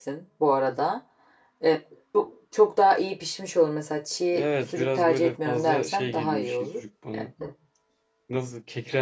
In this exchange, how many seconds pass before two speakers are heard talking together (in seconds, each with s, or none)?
4.3 s